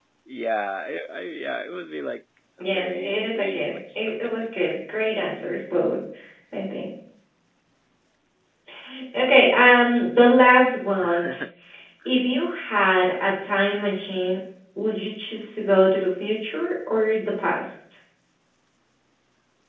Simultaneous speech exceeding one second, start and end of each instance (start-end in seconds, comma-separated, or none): 2.6-4.5